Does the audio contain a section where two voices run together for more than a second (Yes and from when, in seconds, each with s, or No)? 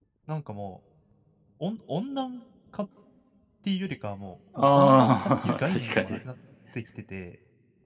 Yes, from 4.5 s